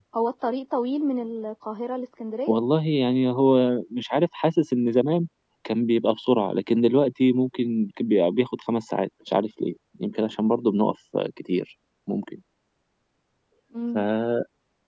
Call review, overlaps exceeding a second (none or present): none